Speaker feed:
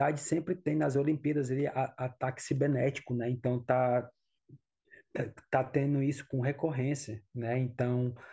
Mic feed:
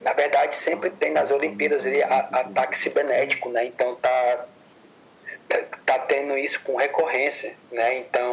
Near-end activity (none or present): present